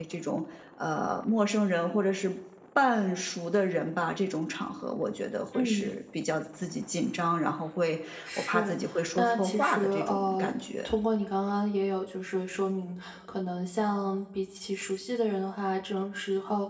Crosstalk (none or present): present